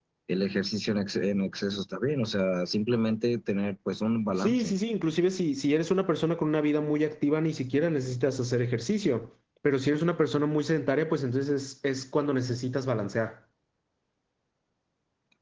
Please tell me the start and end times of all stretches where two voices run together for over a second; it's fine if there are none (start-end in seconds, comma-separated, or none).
none